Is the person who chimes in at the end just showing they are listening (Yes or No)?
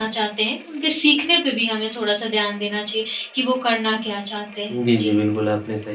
No